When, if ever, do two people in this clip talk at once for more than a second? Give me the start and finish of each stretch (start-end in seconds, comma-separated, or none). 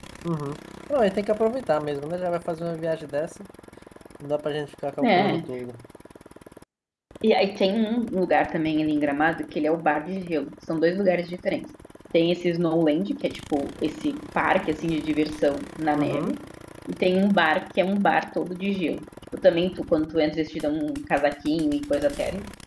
none